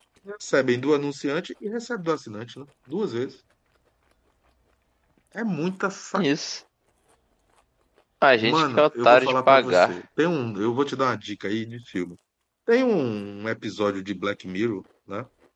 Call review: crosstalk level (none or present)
present